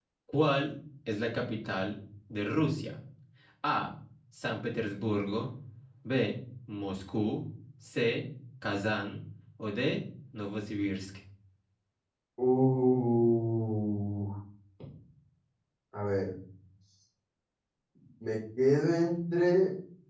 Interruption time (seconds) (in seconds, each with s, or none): none